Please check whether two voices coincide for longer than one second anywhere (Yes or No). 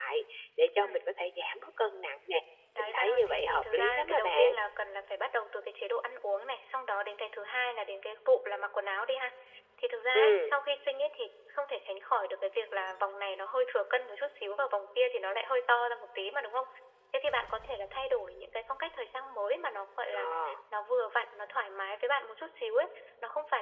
Yes